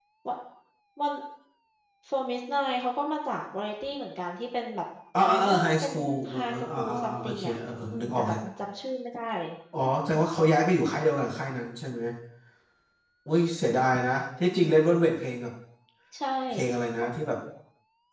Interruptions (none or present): present